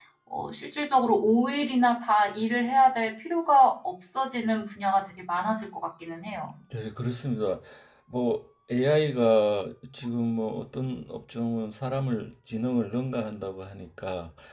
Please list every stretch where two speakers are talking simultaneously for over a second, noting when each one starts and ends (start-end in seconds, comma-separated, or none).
none